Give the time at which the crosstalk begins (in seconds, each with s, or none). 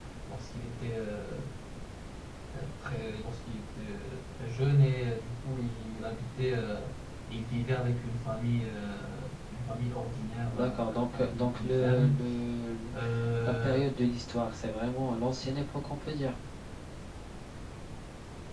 10.5 s